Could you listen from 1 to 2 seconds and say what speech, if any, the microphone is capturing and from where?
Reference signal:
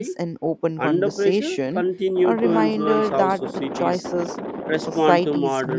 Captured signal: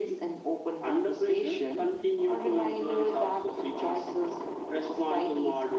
echo only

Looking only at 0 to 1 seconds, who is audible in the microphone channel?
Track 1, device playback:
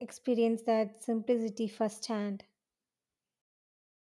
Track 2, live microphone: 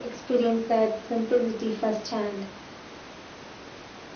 echo only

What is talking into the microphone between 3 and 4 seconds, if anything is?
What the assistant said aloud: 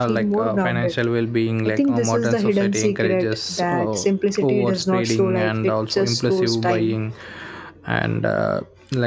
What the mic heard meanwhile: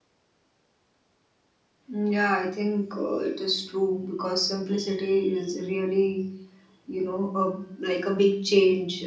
user only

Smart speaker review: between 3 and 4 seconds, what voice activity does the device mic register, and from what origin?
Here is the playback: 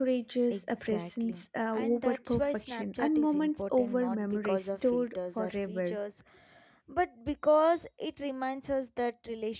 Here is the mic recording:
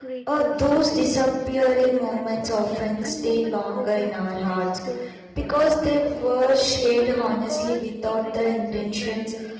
both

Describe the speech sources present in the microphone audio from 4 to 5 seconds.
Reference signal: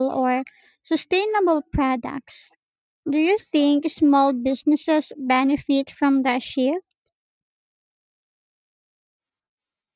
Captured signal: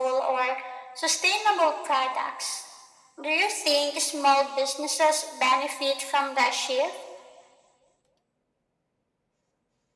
echo only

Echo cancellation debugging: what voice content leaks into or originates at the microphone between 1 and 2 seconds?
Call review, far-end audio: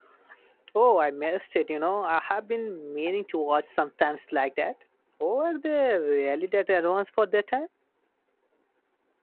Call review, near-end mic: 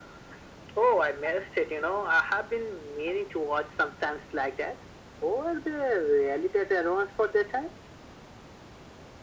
echo only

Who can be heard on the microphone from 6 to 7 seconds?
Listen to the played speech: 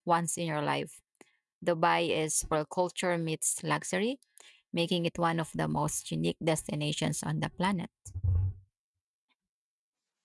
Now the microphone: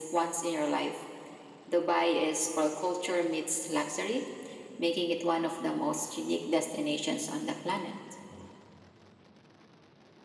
echo only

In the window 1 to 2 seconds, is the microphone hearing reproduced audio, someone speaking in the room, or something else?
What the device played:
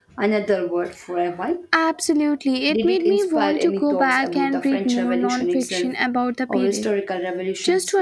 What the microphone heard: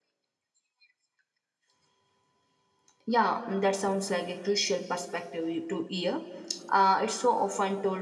neither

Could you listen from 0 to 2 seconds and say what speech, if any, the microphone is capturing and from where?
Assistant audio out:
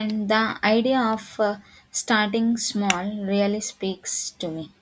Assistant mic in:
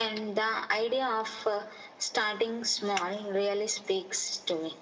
echo only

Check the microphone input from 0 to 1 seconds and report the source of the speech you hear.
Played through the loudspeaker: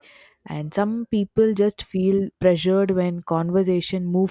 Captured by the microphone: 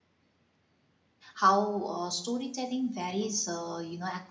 neither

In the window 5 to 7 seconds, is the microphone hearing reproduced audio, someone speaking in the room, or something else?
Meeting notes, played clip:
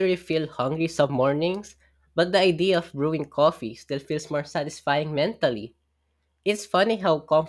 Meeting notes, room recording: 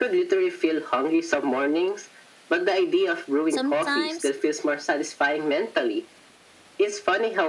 echo only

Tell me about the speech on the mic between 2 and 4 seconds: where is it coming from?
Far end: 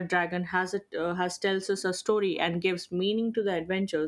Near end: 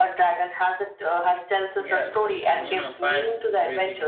both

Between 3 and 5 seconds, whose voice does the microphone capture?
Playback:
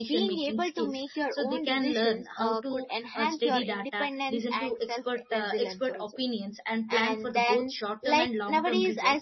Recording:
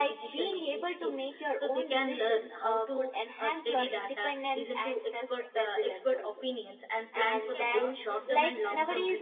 echo only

